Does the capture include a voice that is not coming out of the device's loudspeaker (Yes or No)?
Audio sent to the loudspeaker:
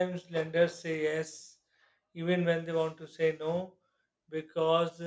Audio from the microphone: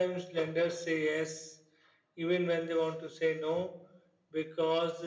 No